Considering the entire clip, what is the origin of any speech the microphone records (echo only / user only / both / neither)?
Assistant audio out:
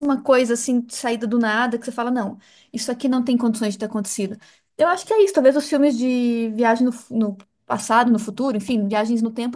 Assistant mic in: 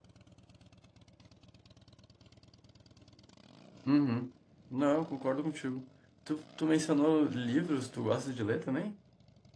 user only